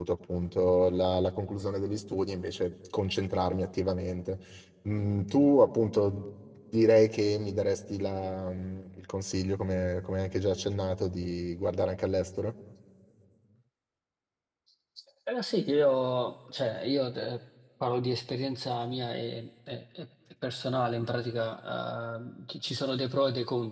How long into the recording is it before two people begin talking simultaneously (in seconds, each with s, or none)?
none